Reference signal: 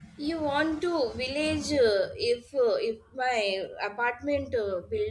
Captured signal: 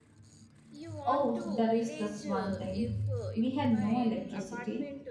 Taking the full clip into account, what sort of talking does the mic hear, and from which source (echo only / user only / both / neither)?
both